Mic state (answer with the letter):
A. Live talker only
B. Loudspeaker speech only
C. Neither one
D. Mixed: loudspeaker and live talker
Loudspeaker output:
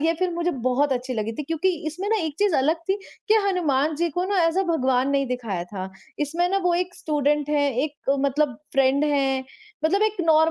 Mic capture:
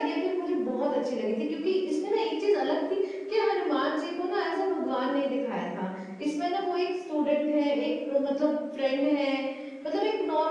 B